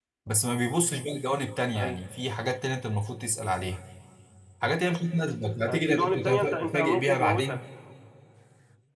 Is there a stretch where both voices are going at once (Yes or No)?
Yes